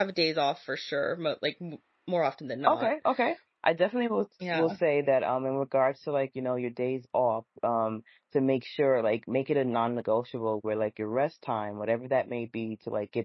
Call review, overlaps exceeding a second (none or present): none